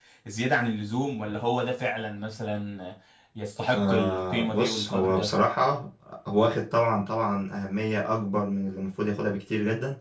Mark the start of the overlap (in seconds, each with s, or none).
3.7 s